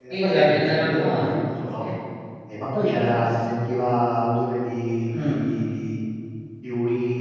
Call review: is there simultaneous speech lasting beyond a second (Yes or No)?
Yes